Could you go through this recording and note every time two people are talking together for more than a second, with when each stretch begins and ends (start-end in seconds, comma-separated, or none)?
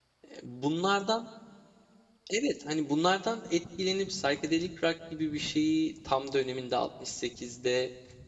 none